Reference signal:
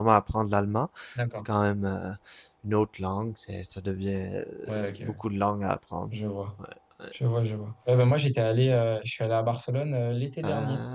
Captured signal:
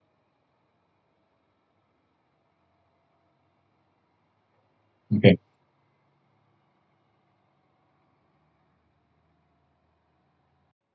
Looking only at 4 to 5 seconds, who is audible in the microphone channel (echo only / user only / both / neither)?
neither